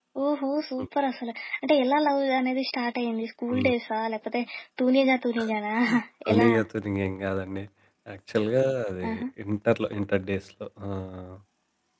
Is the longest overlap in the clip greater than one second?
No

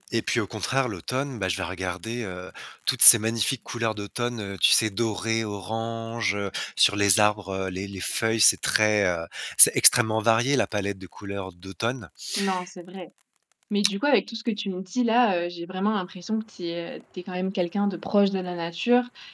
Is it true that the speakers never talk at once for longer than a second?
Yes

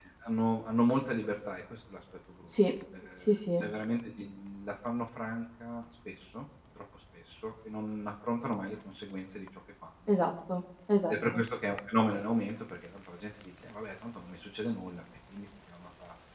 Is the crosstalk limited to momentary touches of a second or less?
Yes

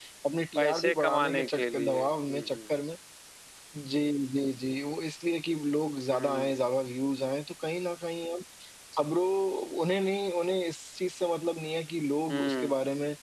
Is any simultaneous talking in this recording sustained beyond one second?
Yes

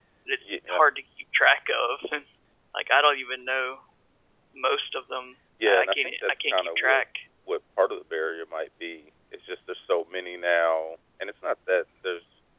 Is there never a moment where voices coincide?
No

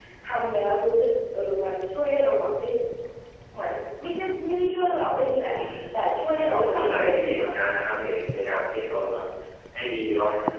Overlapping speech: Yes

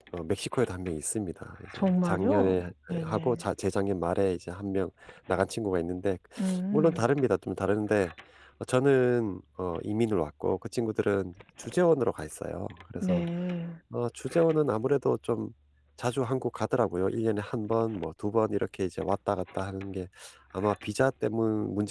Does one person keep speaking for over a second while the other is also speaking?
Yes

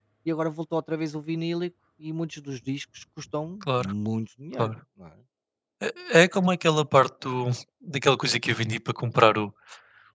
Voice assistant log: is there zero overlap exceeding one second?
Yes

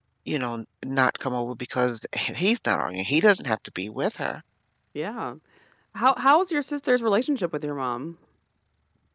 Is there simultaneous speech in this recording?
No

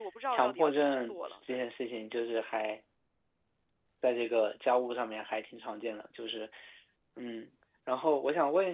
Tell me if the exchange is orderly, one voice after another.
No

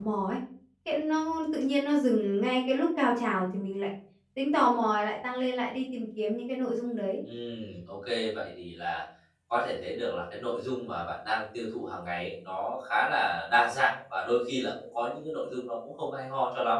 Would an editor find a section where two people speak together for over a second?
No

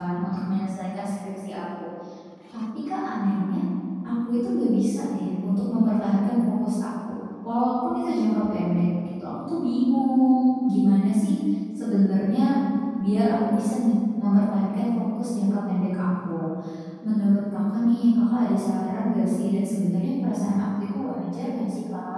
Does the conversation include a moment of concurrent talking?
No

